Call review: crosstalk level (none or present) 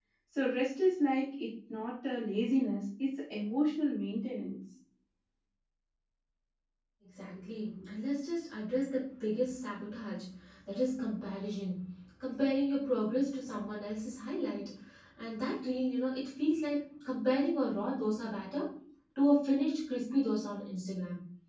none